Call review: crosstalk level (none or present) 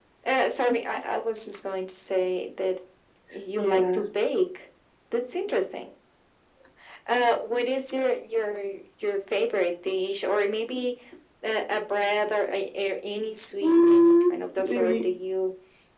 present